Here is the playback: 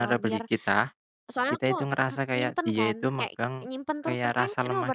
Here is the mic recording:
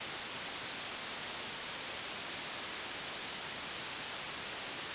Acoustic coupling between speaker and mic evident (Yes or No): No